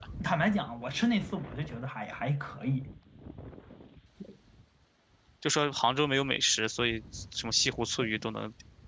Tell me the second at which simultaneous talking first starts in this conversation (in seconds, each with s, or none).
none